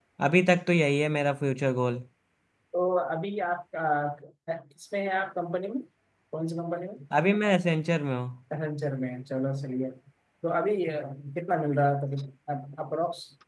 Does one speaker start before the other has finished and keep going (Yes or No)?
No